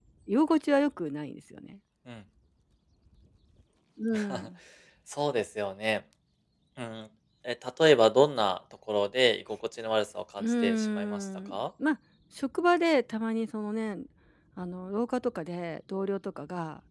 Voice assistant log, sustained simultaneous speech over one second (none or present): present